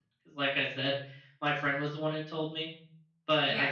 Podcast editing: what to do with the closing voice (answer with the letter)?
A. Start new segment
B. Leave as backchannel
B